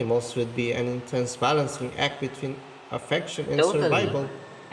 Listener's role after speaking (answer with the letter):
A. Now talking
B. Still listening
A